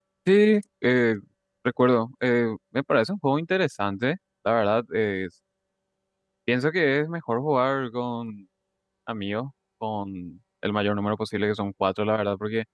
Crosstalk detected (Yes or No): No